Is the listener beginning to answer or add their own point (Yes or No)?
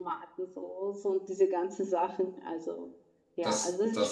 Yes